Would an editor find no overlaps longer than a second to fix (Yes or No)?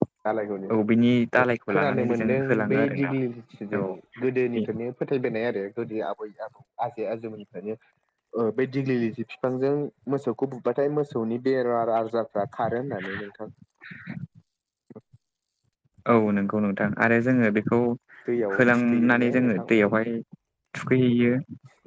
No